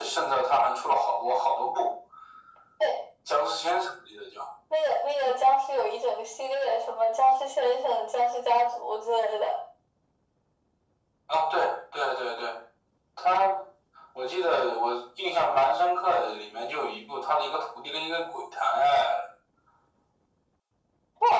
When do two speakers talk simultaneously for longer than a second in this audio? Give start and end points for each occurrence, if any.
none

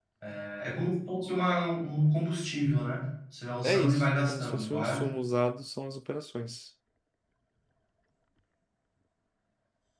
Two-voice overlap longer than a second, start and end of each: 3.6-5.0

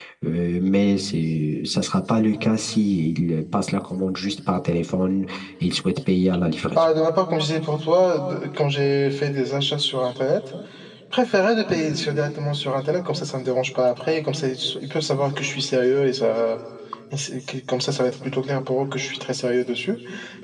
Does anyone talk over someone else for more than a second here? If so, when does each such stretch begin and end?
none

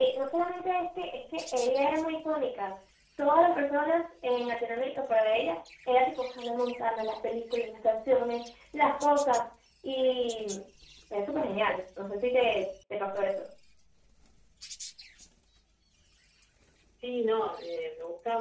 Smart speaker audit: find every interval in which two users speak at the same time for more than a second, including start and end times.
none

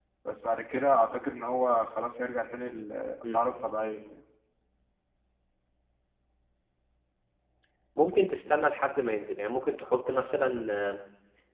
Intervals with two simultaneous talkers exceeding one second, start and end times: none

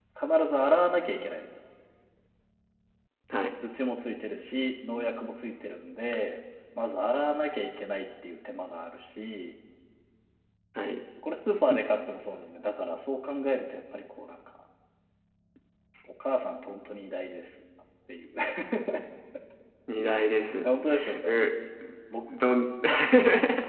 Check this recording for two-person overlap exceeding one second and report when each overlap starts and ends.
none

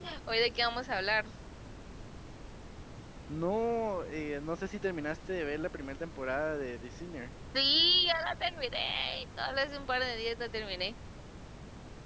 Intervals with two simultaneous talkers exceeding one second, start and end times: none

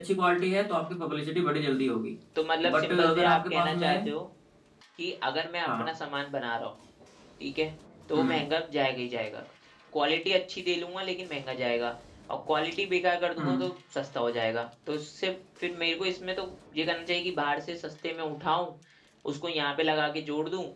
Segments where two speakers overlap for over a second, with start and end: 2.7-4.1

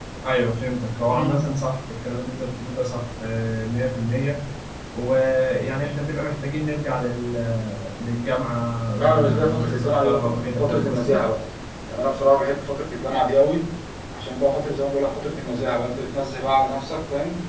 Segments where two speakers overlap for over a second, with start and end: 9.0-11.2

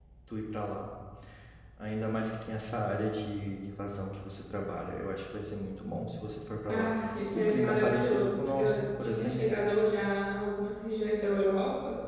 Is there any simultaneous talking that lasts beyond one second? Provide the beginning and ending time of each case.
7.3-9.4

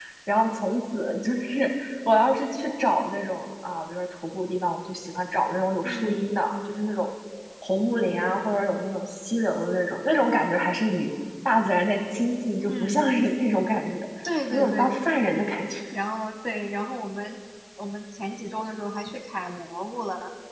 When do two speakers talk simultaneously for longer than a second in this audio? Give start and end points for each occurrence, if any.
none

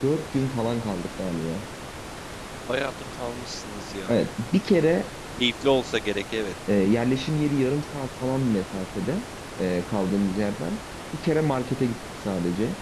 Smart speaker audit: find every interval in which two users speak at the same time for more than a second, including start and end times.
none

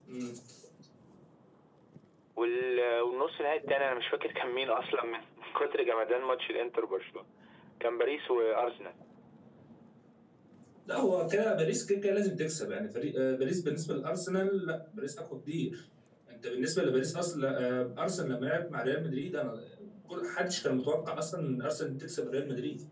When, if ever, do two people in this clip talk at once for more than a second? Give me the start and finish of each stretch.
none

